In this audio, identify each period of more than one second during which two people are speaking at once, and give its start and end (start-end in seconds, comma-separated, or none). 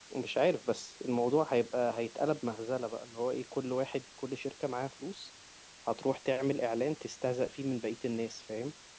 none